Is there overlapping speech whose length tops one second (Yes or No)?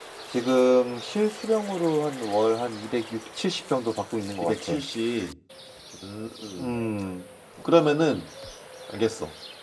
No